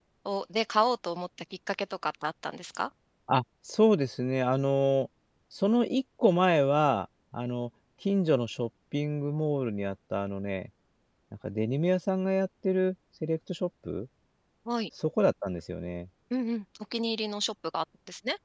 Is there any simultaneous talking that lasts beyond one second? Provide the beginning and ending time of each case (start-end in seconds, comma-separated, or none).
none